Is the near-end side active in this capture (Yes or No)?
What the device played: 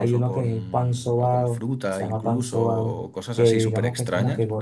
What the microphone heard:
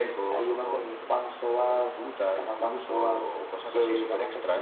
No